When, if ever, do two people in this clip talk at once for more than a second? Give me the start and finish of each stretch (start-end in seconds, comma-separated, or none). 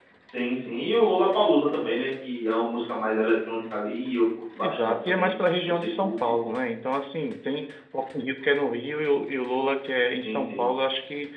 4.6-6.2